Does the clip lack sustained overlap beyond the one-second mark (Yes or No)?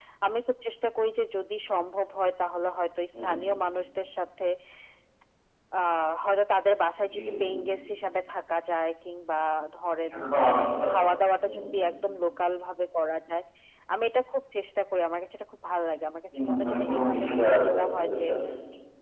No